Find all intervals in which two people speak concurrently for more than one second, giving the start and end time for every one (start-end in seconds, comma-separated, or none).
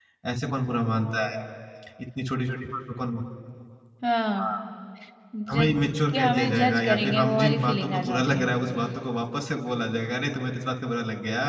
6.1-8.5